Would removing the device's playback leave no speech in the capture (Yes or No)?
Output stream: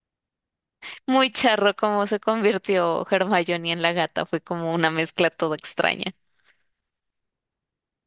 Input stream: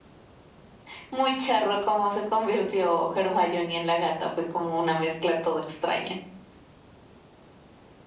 Yes